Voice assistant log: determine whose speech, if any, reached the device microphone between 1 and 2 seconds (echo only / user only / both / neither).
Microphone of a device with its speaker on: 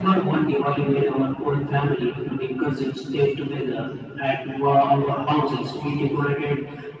echo only